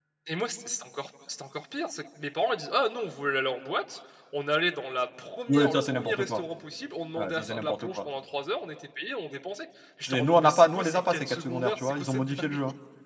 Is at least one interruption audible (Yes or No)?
Yes